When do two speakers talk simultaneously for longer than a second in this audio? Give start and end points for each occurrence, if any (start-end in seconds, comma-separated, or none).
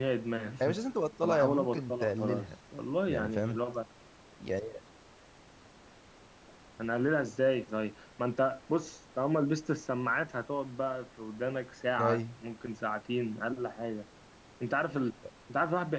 1.2-2.5